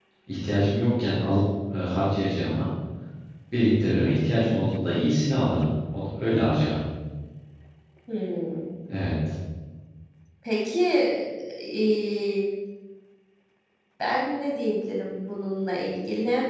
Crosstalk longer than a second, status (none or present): none